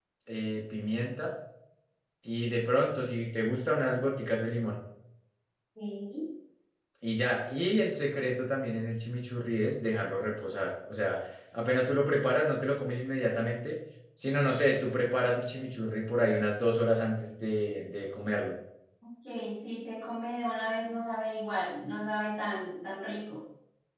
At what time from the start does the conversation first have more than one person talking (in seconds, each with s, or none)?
none